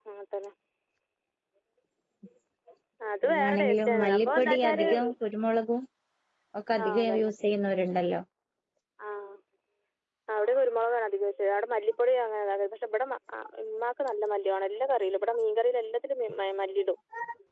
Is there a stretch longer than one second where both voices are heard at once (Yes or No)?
Yes